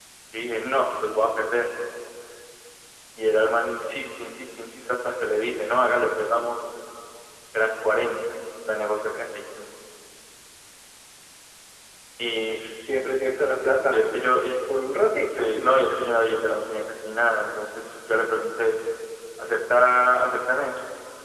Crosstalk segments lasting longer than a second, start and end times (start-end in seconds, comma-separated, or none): none